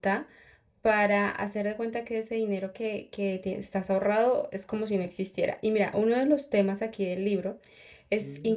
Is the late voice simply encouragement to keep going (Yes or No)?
Yes